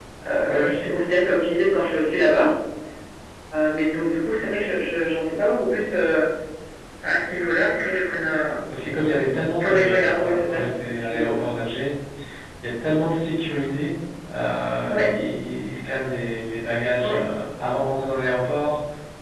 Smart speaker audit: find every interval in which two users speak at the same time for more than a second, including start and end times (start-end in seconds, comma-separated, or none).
9.6-11.3